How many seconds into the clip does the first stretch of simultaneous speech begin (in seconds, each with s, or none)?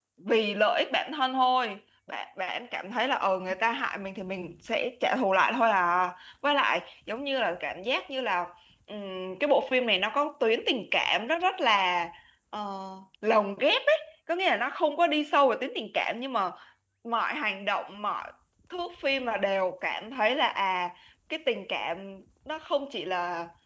none